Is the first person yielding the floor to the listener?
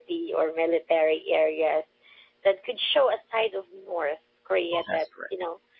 No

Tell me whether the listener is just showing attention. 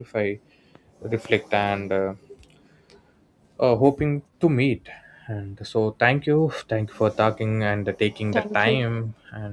Yes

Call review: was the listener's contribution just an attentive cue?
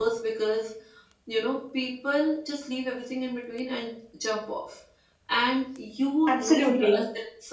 Yes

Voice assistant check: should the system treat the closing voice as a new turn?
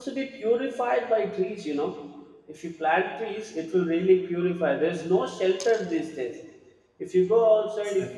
No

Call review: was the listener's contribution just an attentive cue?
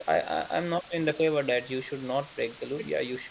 Yes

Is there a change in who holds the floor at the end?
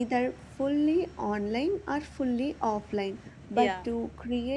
No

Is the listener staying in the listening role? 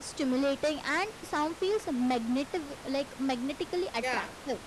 No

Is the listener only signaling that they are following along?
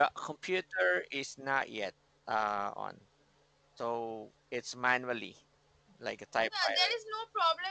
No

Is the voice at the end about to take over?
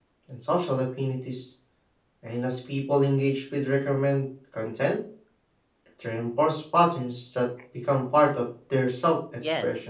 Yes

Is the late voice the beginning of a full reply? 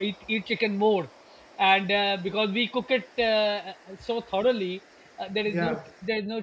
No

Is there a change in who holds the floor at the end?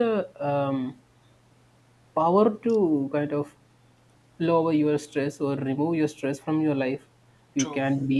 No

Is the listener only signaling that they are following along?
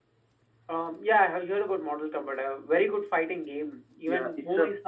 No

